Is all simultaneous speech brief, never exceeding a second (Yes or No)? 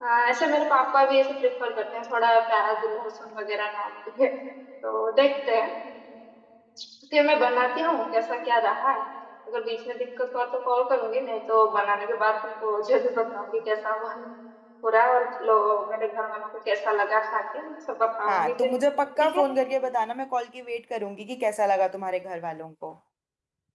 Yes